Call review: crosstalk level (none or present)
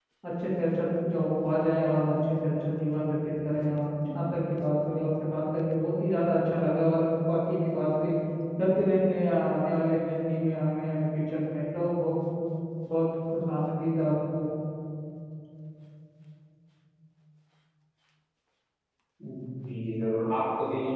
none